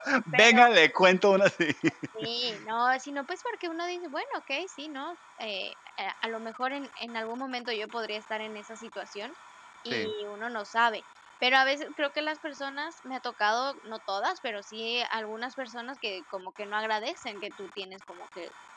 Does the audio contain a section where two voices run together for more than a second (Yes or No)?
No